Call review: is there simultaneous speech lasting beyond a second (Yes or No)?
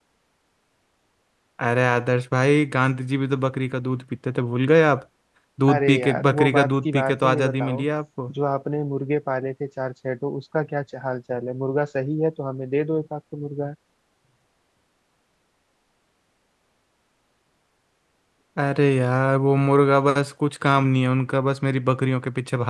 Yes